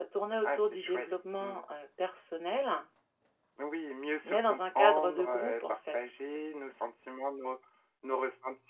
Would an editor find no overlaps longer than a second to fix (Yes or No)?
No